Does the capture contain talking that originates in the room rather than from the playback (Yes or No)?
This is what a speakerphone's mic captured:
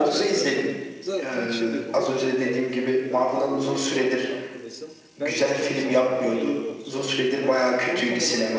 Yes